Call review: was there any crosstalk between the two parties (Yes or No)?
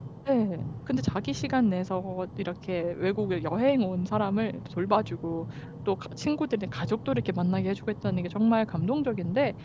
No